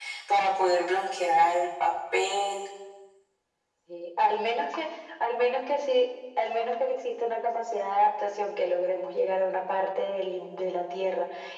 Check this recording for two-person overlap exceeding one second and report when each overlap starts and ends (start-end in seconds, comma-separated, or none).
none